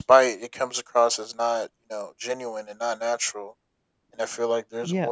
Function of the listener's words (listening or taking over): listening